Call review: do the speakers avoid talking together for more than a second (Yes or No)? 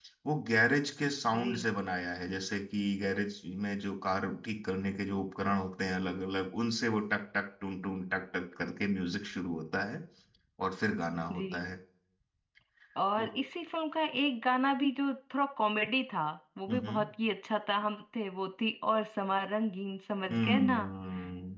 Yes